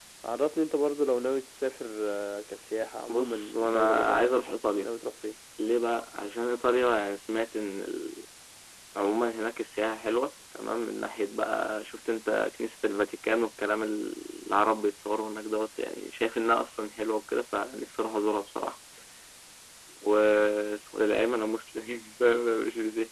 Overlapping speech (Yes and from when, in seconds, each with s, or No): Yes, from 3.1 s